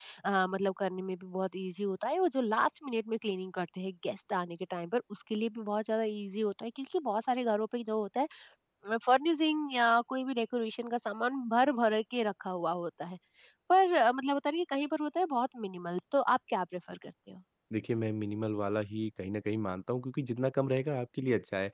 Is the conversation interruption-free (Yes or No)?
Yes